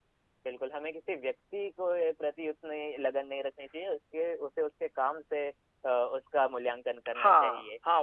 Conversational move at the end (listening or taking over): taking over